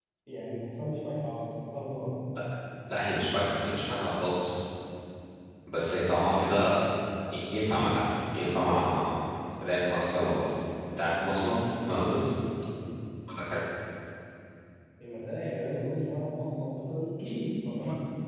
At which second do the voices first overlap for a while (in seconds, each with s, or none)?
none